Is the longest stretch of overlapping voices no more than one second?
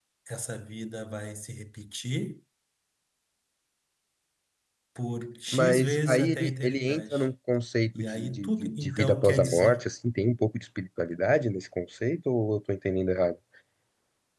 No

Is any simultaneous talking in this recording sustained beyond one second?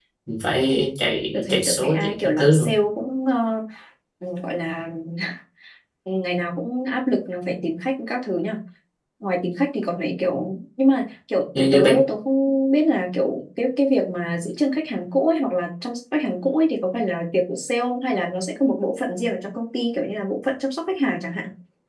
Yes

